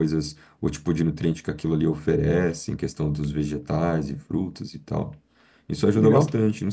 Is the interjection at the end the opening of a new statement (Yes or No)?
No